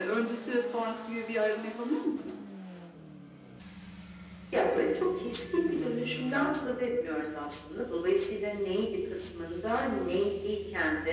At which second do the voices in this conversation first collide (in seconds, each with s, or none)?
none